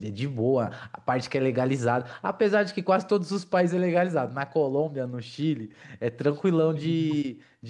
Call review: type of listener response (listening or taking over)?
listening